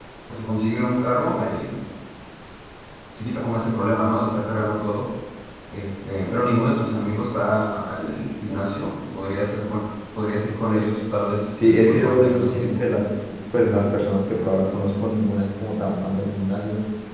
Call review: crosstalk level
present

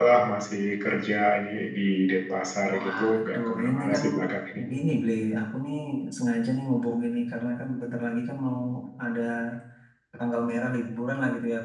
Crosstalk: present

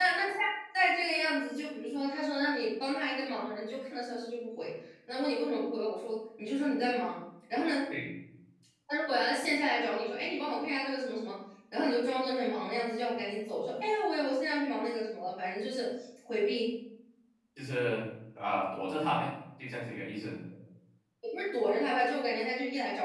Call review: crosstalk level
none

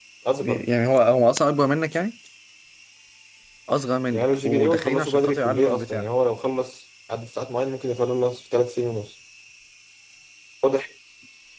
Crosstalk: present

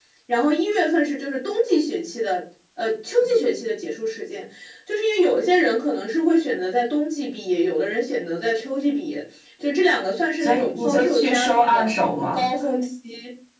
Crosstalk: present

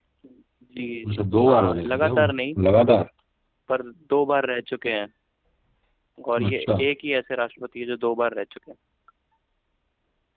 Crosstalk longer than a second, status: present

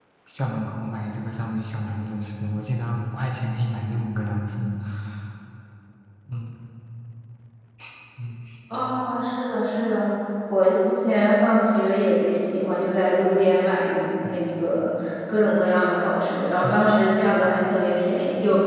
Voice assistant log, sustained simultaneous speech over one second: none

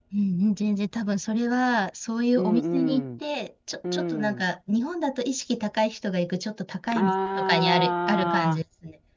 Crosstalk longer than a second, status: present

